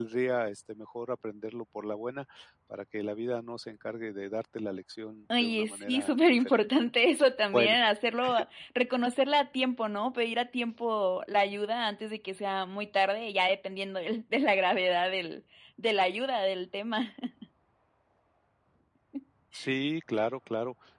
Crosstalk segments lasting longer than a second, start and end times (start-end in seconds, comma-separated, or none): 5.4-6.8